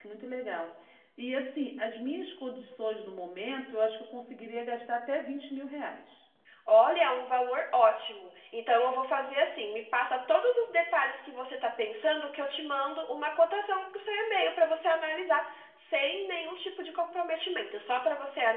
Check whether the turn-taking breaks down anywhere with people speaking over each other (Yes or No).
No